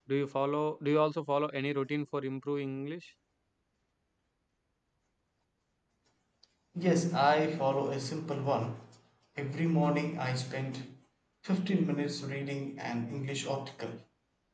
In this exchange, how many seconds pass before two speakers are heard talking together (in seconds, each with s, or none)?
none